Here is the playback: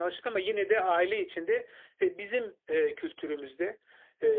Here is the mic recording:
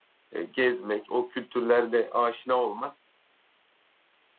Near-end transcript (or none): e, gezmek, o kültürlerle aşina olmak